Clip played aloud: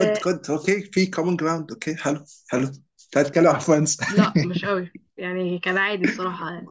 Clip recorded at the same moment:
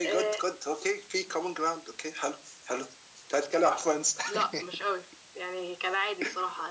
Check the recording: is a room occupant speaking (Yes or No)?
No